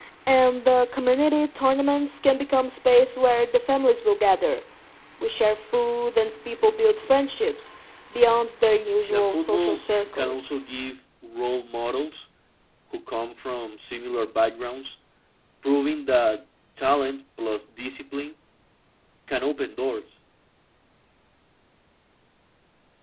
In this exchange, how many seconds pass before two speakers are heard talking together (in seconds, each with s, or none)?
9.1 s